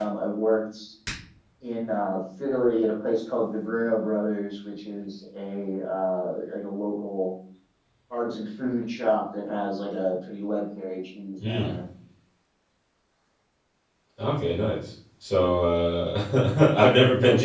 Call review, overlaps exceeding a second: none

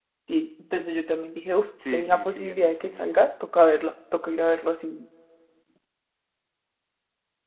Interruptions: present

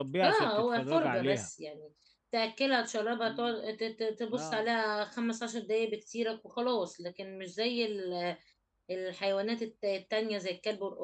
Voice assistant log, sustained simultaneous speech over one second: present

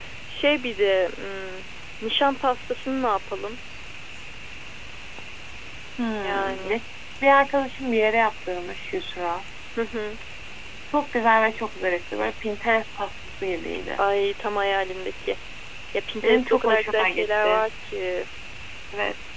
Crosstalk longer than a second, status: present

